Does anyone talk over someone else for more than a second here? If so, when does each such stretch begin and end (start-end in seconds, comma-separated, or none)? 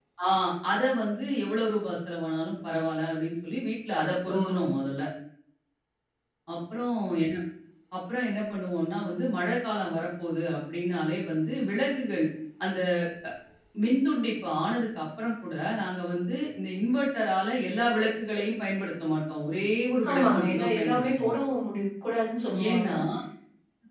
20.1-21.3